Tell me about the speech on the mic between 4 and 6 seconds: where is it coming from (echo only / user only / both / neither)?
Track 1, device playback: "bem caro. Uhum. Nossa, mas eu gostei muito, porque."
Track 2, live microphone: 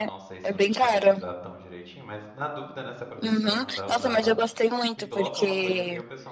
both